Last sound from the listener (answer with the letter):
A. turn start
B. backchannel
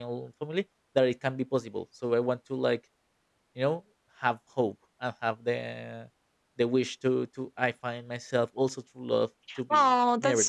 A